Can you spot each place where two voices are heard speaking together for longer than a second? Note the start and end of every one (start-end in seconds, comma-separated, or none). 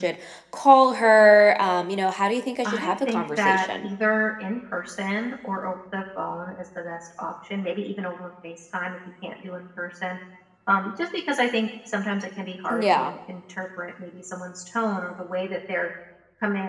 2.6-3.9